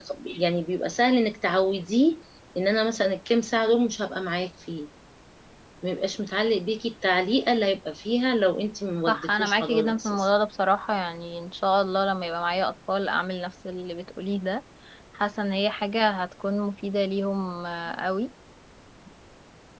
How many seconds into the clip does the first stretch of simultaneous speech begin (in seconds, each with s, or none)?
9.1 s